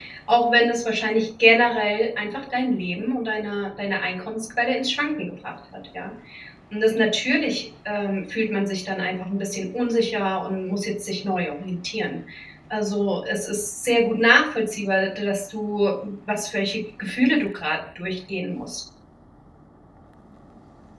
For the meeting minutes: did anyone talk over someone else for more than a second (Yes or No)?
No